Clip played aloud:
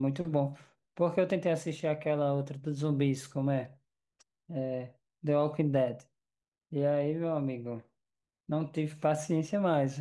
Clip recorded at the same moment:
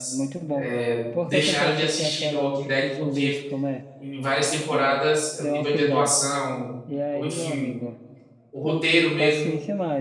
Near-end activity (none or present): present